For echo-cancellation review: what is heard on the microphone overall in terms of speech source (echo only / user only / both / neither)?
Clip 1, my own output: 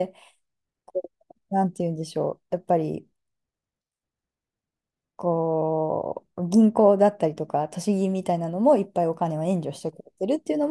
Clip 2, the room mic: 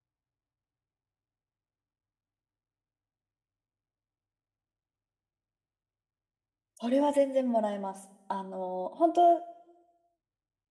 user only